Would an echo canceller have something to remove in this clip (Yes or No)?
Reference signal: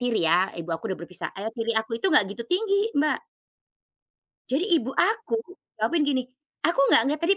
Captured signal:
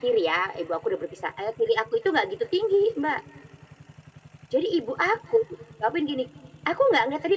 Yes